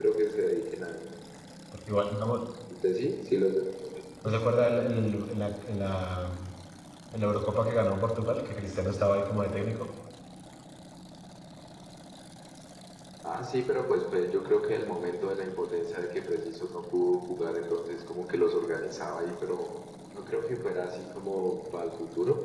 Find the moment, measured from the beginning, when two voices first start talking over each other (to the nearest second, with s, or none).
none